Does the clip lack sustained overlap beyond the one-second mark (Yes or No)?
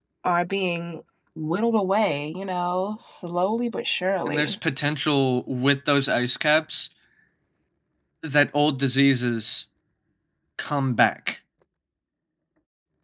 Yes